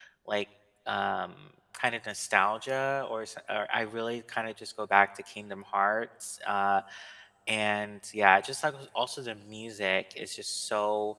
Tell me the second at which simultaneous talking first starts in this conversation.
none

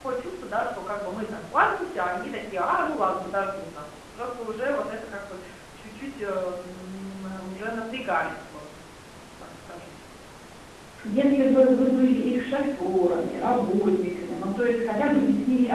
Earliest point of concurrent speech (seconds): none

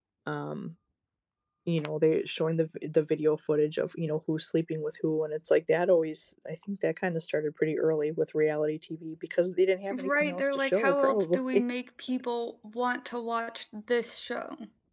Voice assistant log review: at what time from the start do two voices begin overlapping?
9.9 s

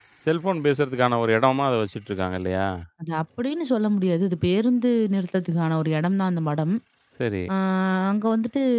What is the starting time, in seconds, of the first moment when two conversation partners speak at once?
none

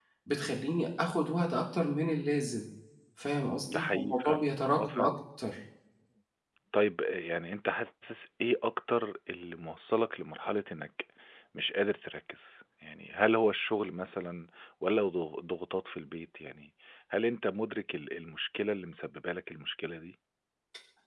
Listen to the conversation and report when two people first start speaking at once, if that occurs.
3.7 s

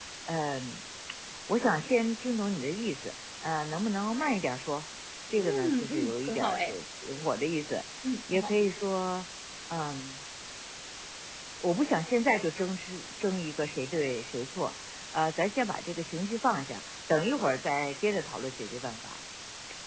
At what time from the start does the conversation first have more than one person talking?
5.4 s

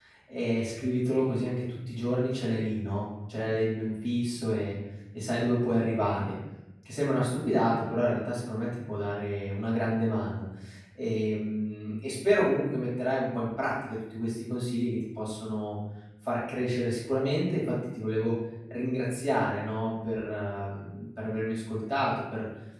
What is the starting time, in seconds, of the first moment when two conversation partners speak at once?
none

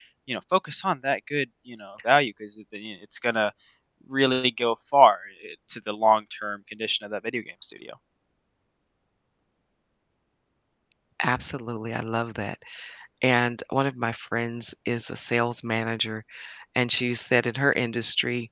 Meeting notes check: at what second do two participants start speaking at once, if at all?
none

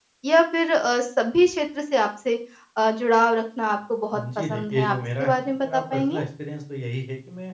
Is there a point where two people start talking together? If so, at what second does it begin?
4.1 s

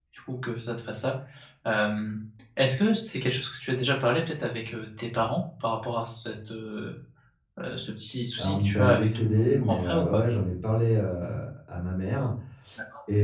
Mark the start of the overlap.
8.4 s

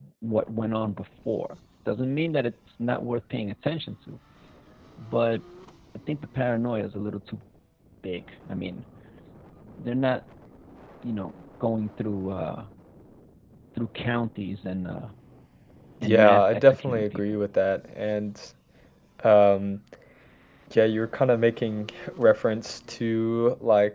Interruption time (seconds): 16.0 s

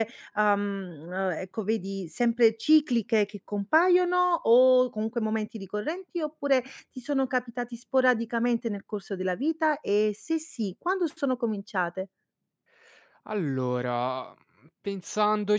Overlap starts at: none

